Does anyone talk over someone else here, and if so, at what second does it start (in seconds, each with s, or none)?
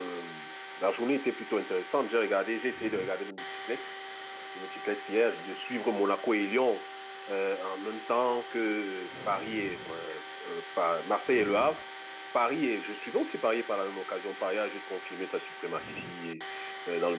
none